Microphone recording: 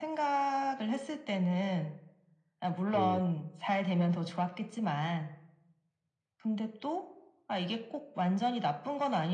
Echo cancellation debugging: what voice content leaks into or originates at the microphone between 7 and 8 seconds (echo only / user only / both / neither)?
echo only